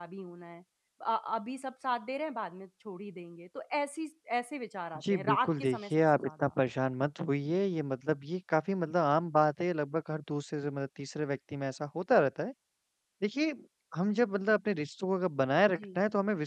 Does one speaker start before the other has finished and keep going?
Yes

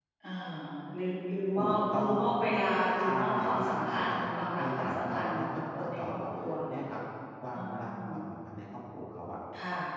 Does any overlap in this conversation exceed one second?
Yes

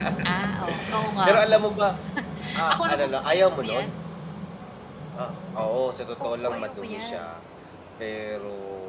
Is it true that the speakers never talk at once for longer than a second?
No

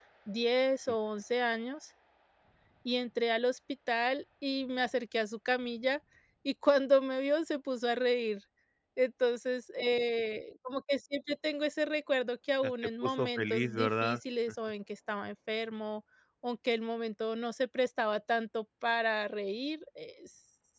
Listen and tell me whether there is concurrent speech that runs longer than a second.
Yes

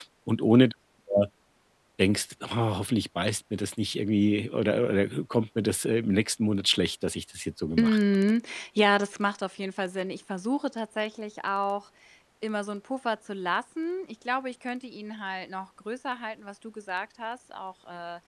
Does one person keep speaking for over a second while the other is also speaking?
No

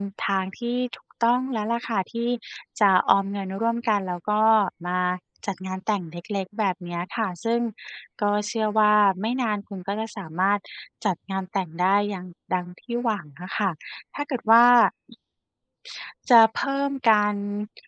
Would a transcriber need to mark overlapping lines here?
No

